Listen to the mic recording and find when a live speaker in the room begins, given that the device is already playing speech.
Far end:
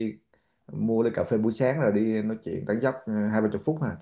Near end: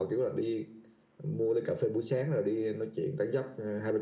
none

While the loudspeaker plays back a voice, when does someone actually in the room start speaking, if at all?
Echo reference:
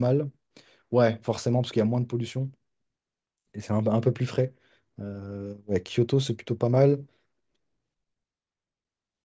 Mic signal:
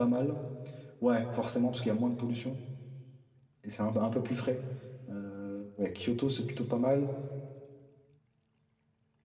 none

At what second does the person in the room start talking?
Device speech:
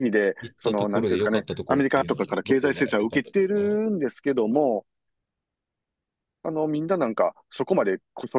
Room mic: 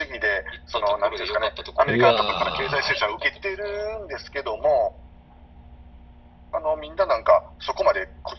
1.8 s

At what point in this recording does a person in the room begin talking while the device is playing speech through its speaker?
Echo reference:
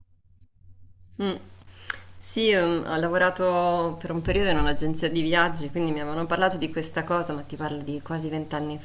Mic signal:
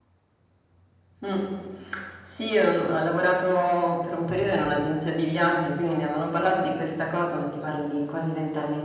none

